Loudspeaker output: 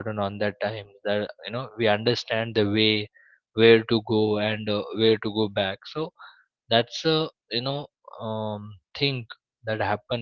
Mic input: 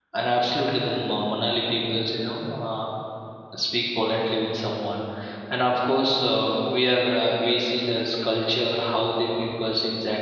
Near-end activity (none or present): present